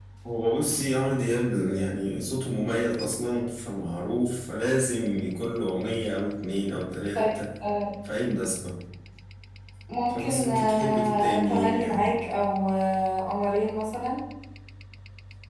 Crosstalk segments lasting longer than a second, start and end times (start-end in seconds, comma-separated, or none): 10.1-12.2